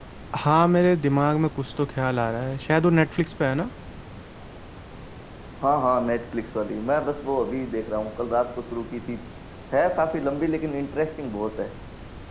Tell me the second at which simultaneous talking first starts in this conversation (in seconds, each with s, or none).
none